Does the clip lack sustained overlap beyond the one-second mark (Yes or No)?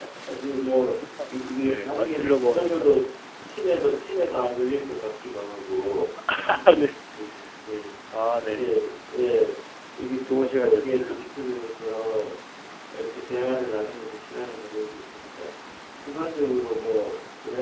No